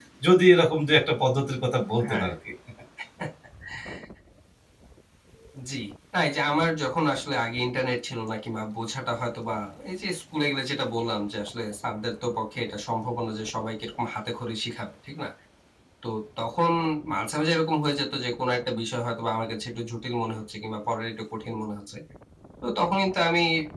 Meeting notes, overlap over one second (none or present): none